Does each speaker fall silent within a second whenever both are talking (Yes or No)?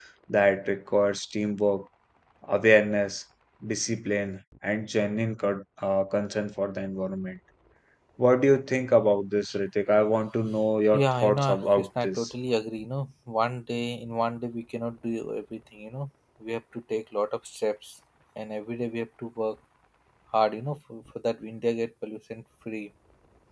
No